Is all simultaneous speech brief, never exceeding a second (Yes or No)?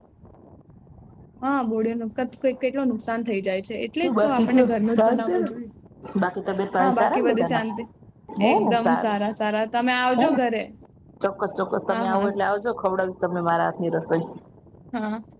No